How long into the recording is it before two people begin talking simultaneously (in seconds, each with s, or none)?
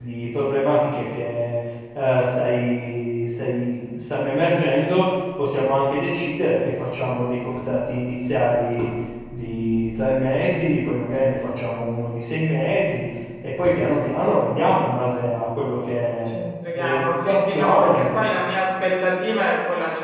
16.8 s